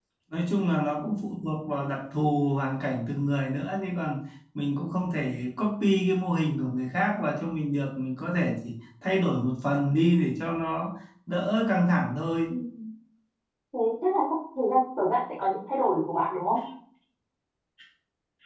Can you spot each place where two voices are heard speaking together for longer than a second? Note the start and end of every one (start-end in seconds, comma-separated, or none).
none